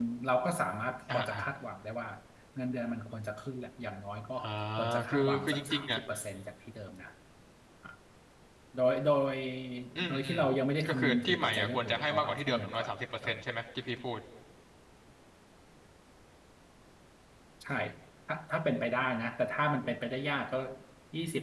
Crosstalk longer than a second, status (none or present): present